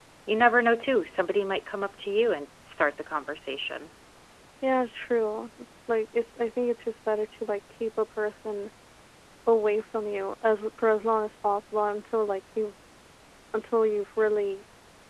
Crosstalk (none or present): none